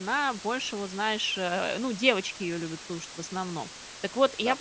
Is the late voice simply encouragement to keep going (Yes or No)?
Yes